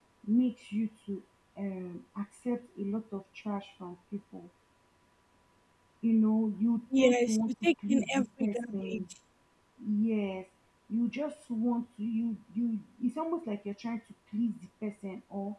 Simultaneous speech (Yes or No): Yes